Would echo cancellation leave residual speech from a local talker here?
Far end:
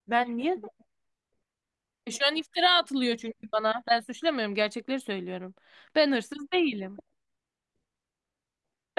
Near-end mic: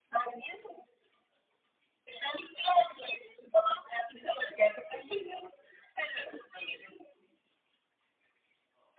No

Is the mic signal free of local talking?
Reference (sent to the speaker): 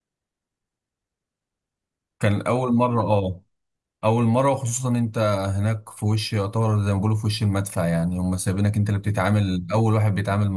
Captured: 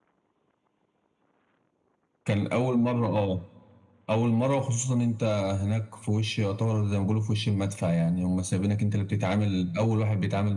Yes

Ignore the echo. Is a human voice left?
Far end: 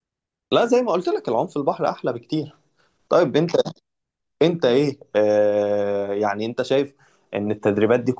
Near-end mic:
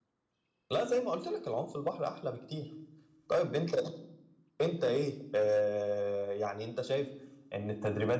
No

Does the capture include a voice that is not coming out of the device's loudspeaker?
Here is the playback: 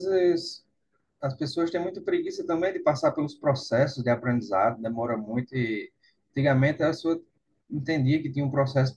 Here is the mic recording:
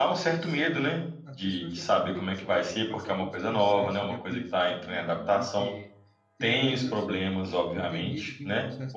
Yes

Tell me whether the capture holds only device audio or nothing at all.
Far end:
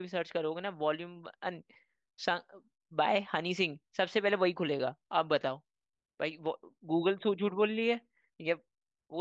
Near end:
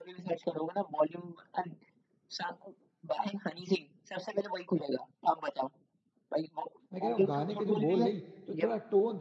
No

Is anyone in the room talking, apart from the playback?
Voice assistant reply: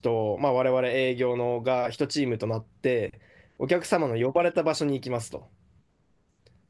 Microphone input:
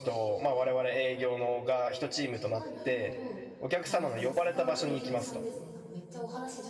Yes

